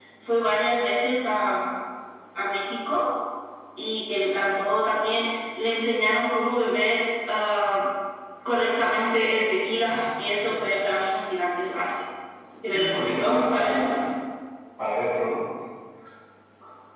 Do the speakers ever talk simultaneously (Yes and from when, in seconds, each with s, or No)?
Yes, from 12.7 s